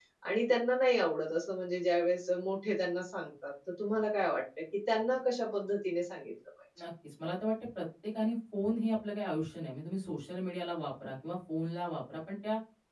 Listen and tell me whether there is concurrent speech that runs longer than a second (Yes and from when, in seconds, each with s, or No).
No